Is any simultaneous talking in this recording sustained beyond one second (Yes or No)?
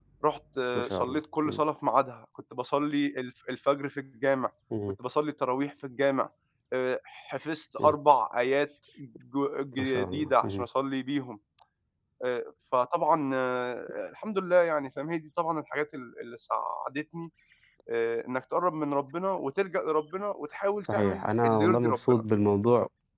Yes